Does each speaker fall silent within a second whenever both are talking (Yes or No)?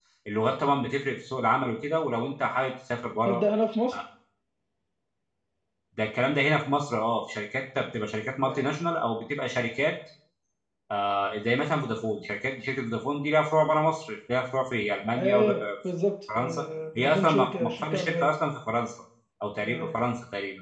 No